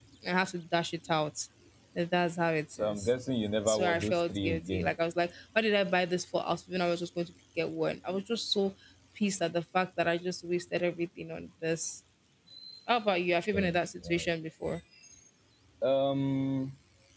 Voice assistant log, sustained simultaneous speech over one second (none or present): present